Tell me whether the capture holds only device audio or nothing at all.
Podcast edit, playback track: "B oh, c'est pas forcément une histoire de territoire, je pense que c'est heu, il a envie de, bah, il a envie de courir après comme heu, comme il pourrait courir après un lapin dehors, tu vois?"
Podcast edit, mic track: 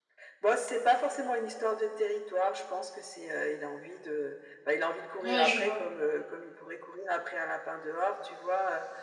No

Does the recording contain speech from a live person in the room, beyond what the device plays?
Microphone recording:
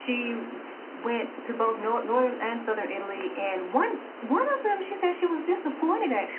No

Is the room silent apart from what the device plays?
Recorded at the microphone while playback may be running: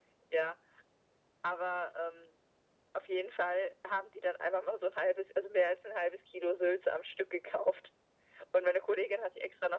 Yes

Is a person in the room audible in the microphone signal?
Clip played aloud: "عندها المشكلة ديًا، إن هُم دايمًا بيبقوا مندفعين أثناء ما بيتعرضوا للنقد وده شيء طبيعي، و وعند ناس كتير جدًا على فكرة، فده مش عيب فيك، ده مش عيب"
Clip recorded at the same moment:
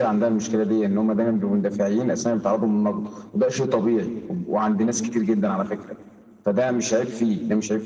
No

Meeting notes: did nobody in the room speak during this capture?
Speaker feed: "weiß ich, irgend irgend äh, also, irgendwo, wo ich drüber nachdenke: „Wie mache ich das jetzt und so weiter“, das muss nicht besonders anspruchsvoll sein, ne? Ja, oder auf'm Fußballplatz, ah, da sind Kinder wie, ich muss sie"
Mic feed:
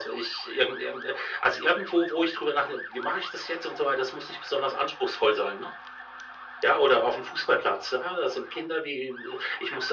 Yes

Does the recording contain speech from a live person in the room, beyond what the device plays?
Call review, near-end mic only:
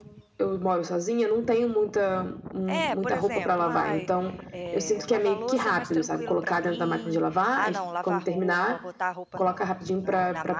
Yes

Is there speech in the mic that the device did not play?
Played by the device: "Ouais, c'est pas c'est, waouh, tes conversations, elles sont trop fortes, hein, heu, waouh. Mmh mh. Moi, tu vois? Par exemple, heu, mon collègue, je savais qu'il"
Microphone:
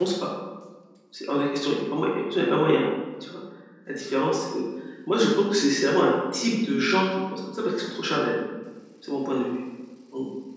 Yes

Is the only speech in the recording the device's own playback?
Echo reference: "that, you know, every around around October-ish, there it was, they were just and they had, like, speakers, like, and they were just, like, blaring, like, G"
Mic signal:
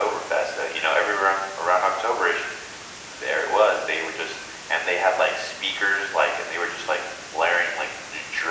Yes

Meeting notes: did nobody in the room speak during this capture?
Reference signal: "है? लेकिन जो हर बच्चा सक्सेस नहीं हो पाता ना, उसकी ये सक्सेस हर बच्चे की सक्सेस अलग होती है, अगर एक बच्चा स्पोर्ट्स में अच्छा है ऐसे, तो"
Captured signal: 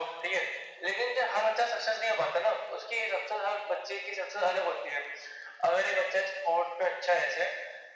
Yes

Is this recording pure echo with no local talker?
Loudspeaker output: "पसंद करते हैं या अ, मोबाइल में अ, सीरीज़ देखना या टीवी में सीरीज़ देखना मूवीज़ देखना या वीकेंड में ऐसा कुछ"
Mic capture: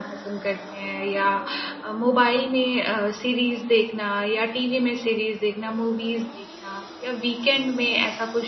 Yes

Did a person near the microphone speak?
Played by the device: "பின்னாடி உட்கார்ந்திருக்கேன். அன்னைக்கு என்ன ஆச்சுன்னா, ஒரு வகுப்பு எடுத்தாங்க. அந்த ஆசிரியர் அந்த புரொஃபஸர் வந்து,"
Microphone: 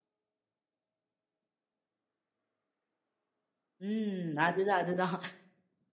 Yes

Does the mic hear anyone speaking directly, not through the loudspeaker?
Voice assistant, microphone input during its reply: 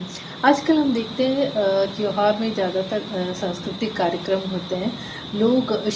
Yes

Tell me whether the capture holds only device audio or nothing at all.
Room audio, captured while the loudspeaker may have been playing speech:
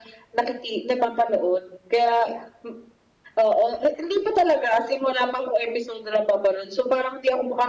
Yes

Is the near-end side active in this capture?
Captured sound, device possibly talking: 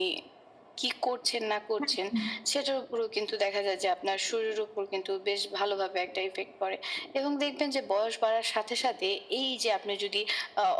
Yes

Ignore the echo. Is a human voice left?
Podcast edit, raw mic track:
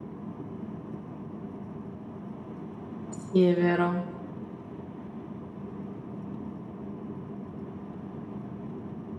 Yes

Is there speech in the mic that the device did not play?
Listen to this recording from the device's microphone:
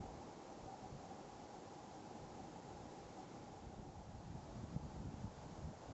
No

